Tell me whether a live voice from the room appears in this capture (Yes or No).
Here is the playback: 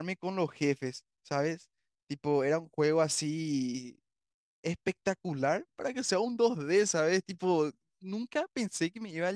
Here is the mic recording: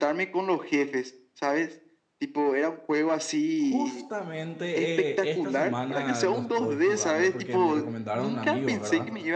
Yes